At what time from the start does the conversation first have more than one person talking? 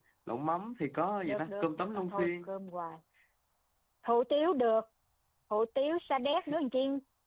1 s

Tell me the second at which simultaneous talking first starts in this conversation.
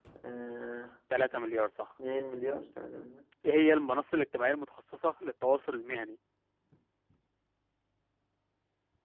none

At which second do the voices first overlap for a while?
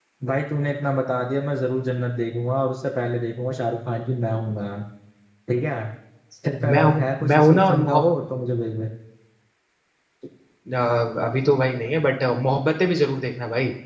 7 s

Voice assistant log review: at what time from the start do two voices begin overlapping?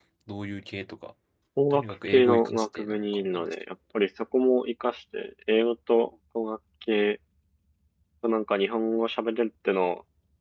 2 s

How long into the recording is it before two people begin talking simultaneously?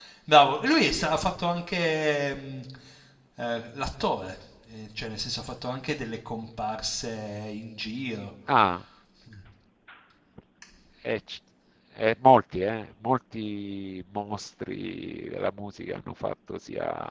none

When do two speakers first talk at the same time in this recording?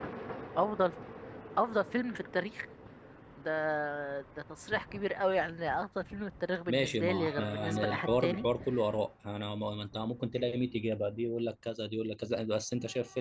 7 s

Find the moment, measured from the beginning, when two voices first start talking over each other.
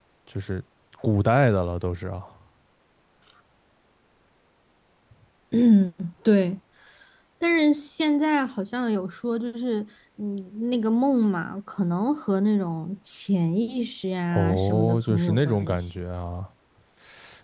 14 s

